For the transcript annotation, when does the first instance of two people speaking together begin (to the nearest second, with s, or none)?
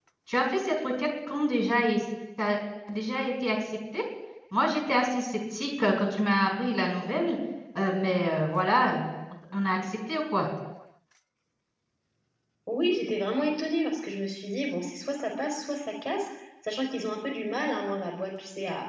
none